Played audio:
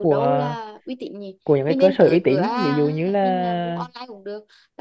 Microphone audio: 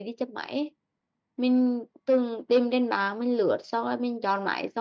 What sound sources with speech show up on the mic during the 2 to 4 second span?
user only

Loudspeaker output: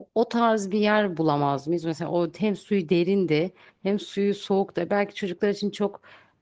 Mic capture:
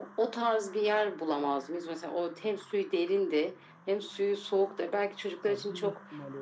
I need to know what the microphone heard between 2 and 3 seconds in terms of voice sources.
echo only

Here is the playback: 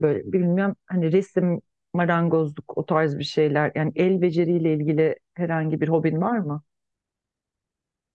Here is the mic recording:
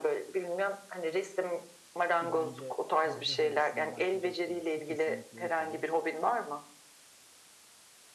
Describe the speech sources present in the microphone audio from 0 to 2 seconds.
echo only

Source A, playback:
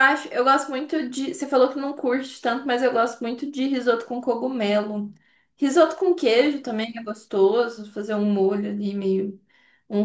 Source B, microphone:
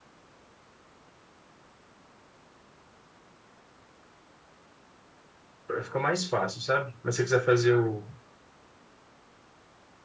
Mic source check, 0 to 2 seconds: neither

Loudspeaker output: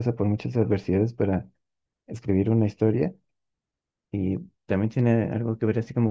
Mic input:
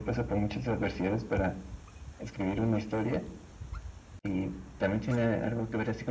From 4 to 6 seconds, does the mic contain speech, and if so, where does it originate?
echo only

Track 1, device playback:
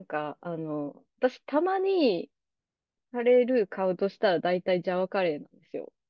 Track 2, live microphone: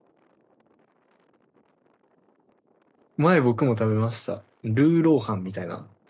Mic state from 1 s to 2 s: neither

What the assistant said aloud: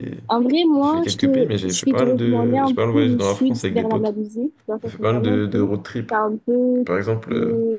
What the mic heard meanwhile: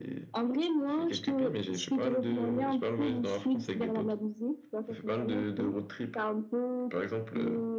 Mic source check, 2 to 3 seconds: echo only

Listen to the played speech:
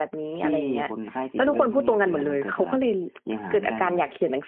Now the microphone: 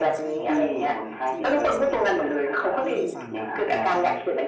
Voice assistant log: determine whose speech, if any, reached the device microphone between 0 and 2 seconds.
both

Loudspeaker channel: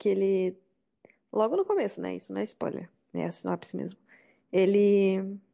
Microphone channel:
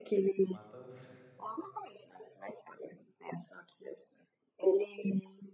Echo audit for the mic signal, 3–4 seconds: echo only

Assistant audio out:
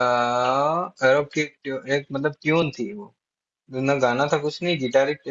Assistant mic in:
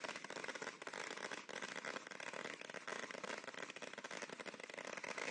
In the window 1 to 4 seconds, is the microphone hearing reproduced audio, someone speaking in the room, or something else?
neither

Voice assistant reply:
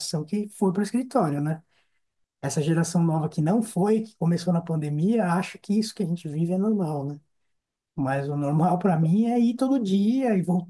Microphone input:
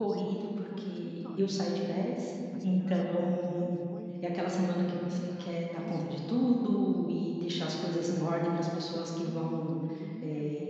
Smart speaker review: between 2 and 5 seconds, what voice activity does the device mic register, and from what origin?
both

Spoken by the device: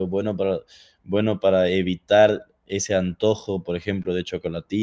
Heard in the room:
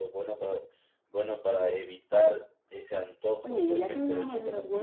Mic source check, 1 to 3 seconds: echo only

